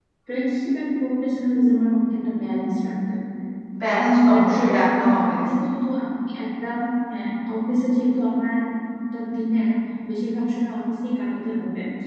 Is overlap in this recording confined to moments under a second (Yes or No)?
No